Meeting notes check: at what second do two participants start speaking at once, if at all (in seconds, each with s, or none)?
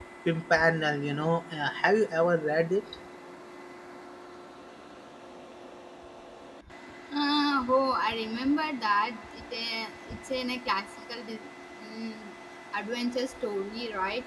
none